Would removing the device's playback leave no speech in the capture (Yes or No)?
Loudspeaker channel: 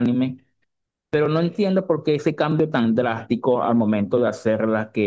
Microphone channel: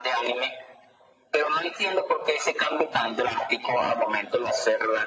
Yes